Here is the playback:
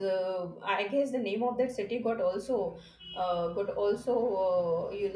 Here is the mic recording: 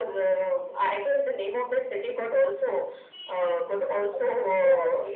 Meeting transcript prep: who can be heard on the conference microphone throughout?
both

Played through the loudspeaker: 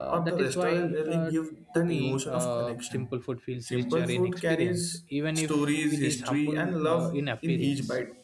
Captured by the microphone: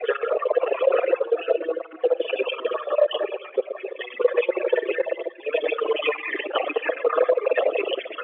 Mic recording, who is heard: echo only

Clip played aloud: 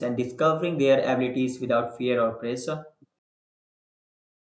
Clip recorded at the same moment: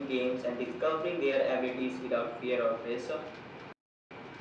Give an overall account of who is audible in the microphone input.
echo only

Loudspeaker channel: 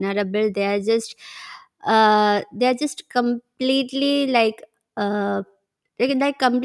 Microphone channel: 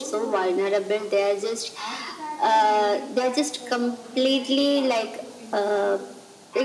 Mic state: both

